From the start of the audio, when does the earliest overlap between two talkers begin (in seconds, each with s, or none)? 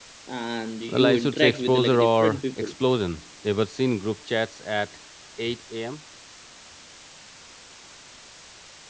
0.9 s